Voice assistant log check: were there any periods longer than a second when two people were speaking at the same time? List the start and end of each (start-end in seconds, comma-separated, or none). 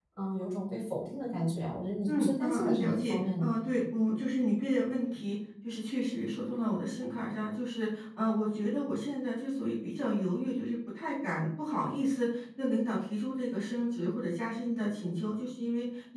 2.1-3.5